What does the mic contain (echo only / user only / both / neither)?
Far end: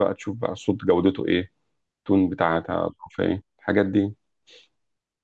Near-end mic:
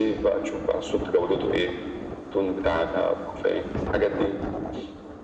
echo only